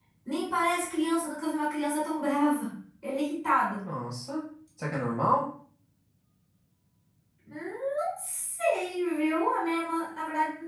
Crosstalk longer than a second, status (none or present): none